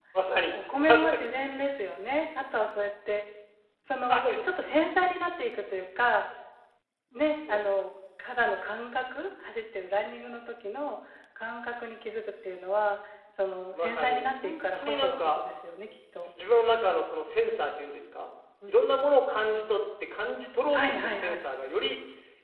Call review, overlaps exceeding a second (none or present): present